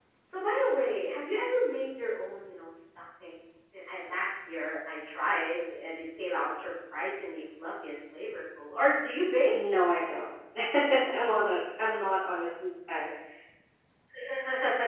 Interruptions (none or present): none